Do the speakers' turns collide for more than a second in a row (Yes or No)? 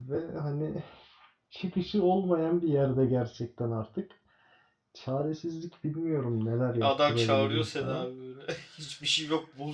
Yes